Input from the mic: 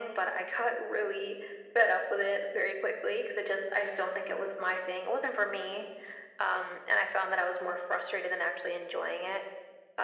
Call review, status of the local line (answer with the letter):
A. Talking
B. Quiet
B